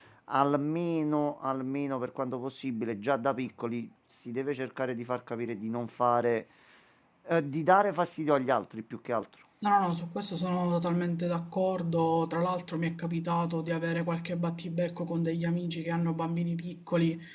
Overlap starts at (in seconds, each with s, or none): none